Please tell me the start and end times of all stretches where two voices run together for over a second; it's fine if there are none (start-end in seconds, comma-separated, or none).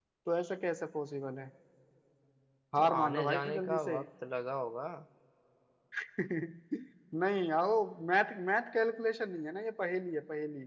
2.8-4.0